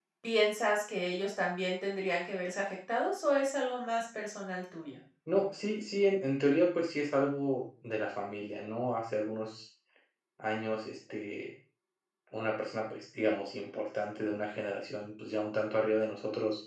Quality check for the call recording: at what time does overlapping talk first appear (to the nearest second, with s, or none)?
none